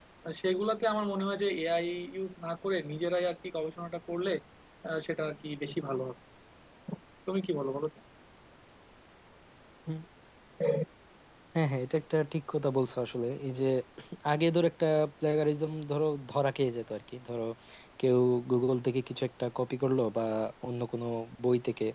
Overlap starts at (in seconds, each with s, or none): none